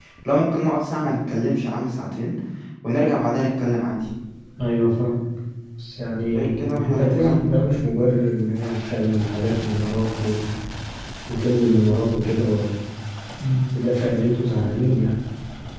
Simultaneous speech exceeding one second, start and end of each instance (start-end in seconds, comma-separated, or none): 6.2-7.4